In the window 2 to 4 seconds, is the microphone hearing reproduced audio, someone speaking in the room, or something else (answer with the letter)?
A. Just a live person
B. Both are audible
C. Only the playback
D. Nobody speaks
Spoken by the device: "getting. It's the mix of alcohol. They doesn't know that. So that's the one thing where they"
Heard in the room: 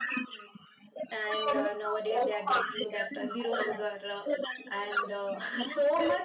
B